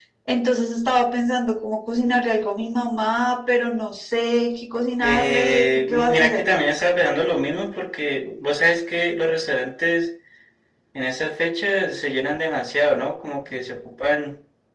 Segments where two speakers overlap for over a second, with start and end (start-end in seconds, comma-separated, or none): 5.0-6.4